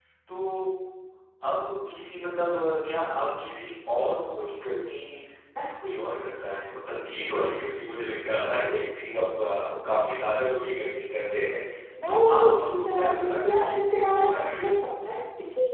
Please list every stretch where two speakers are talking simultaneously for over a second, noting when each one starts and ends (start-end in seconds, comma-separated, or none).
12.1-14.7